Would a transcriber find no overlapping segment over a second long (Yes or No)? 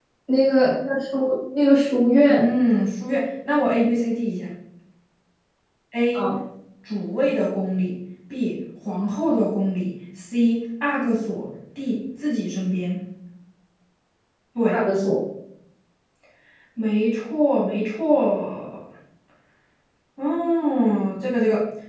Yes